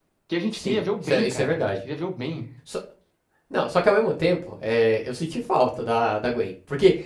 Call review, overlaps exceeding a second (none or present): present